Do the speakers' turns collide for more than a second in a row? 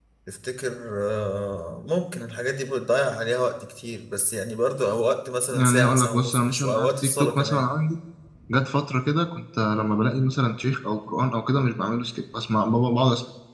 Yes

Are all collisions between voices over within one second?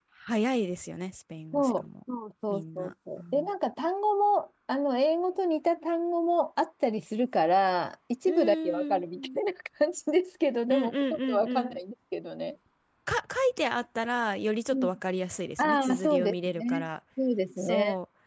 No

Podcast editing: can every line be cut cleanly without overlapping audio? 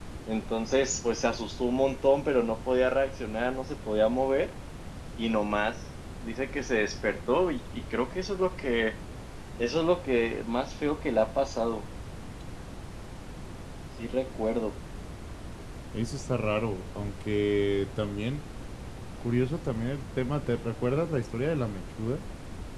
Yes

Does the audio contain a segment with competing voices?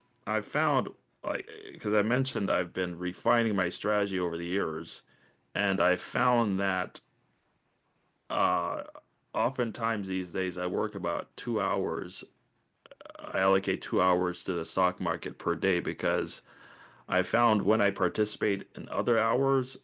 No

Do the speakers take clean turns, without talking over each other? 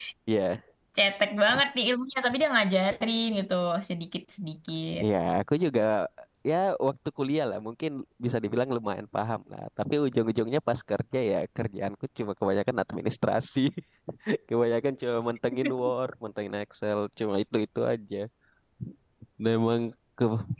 Yes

